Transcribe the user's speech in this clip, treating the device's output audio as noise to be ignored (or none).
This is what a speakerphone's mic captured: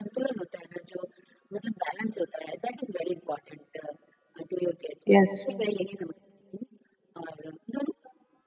यस।